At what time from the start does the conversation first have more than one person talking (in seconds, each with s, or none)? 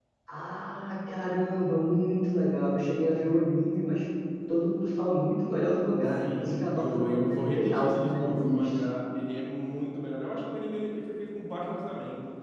6.2 s